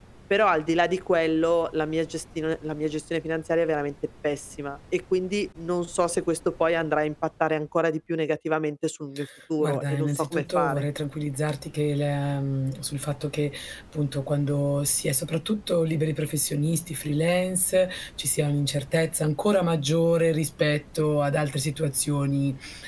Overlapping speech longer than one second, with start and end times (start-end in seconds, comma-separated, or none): 9.6-10.8